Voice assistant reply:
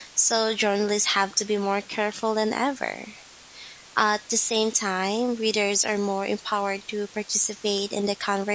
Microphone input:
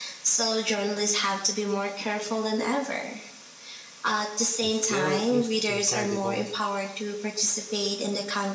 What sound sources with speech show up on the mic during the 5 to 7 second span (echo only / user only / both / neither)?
both